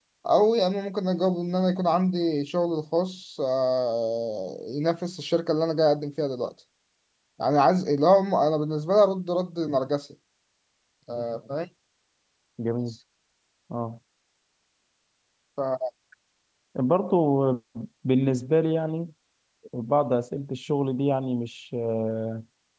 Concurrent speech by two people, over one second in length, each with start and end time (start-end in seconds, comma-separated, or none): none